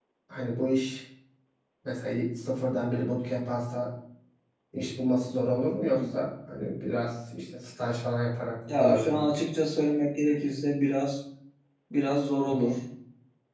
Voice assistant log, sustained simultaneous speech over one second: none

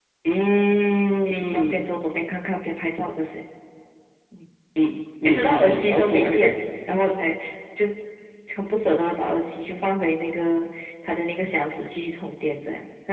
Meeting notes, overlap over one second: present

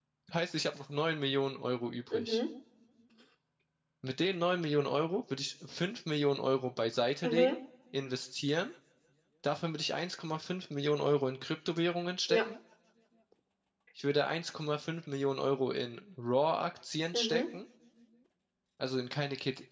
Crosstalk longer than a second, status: none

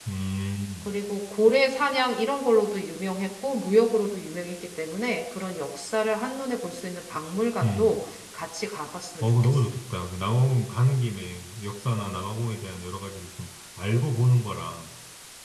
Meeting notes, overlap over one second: none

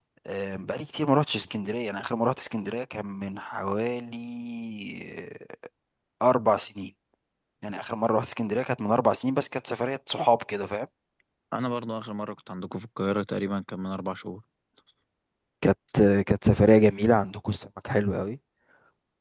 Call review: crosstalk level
none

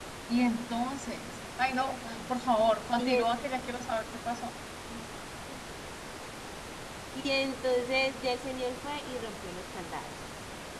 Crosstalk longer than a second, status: none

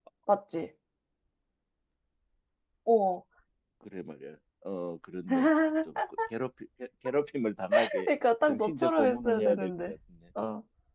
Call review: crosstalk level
present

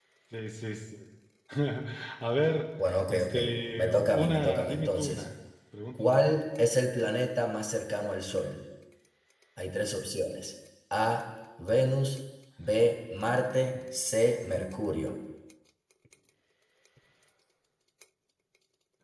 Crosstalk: present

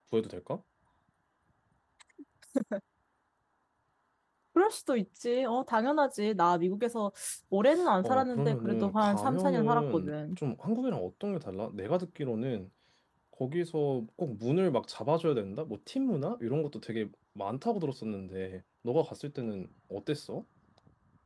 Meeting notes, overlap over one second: present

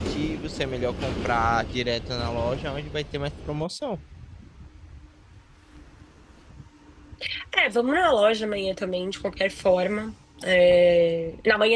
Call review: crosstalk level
none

